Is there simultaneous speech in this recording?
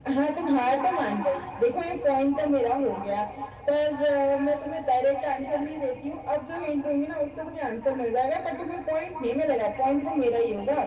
No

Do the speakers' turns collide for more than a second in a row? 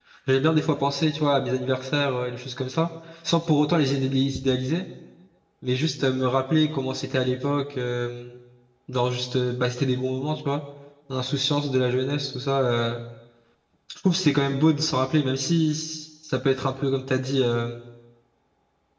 No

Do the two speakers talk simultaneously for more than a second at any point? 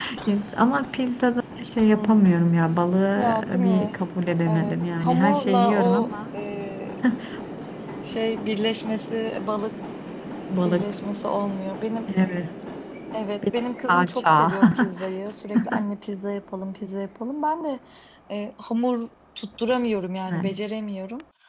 Yes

